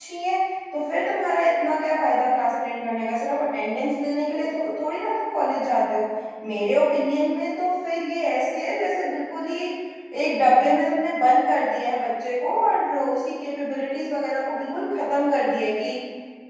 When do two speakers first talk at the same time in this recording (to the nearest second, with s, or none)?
none